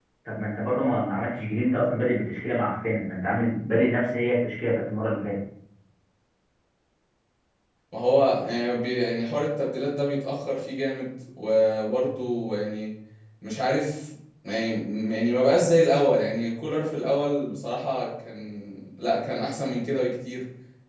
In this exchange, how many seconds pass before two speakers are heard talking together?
none

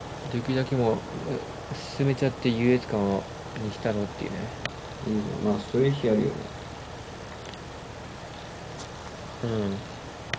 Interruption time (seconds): none

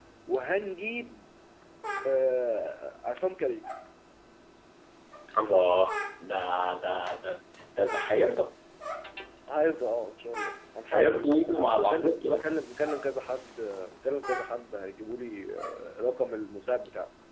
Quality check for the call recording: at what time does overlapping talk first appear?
11 s

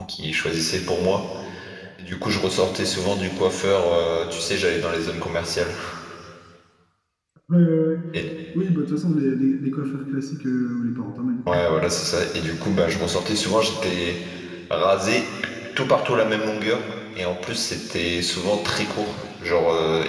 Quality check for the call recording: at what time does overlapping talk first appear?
none

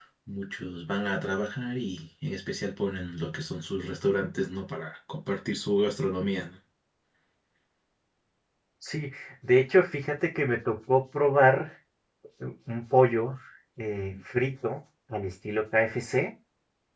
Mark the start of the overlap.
none

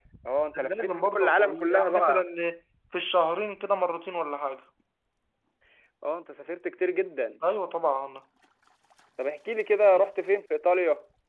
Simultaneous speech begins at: 1 s

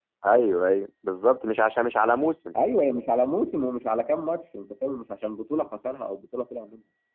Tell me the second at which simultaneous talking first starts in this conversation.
none

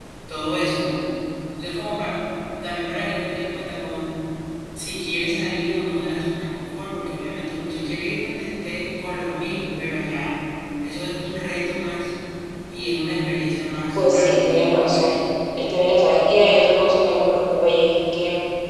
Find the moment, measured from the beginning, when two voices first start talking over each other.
14 s

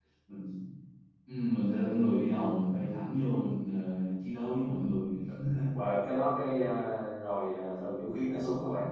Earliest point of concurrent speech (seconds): none

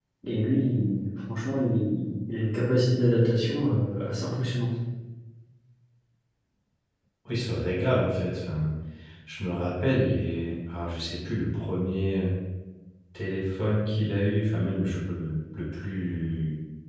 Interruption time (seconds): none

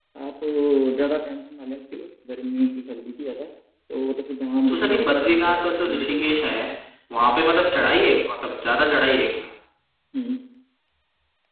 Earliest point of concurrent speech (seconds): 5 s

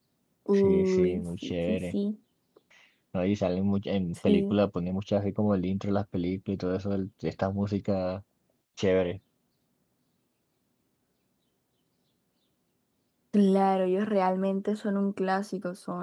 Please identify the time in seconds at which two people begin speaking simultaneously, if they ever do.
1 s

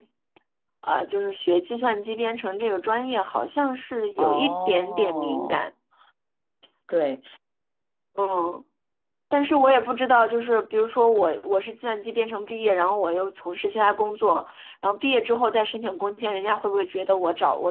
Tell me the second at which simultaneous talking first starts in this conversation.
4 s

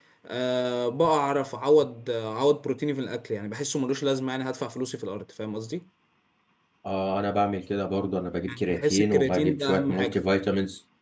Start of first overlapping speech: 8 s

